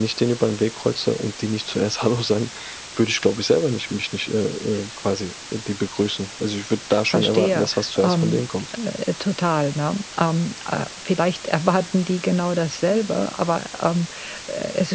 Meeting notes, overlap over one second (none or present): present